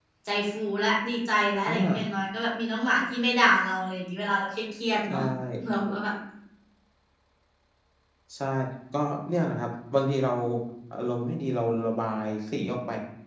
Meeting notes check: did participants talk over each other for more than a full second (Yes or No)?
No